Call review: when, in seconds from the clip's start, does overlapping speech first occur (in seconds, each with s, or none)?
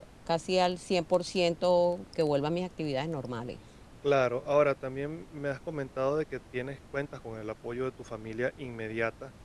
none